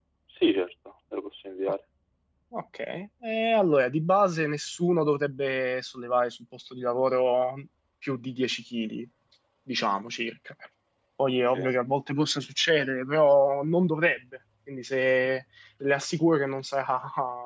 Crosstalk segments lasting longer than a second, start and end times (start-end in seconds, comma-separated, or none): none